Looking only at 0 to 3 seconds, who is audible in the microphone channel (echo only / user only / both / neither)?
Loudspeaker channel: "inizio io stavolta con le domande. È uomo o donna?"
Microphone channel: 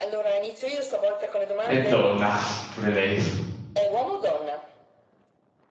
both